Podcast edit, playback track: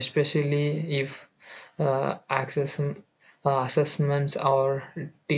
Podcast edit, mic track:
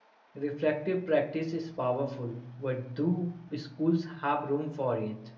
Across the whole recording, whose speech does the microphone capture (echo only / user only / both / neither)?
user only